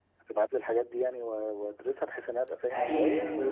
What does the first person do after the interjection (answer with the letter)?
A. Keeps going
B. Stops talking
B